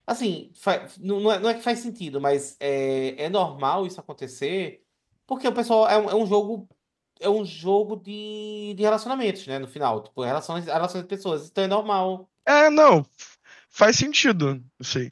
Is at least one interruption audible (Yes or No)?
No